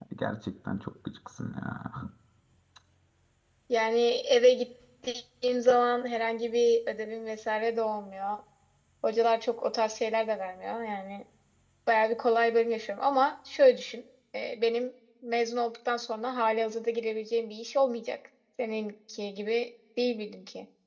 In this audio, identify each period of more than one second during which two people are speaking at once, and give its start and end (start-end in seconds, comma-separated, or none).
none